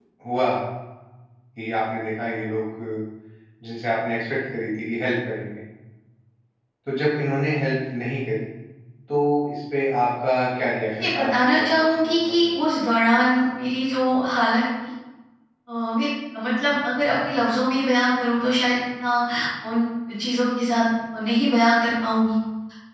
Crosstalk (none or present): present